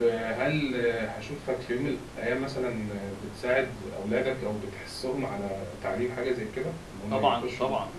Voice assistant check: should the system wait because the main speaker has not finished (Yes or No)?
No